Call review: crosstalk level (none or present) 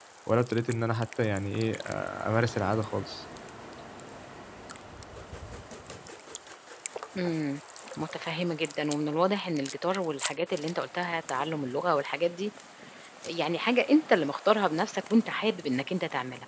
none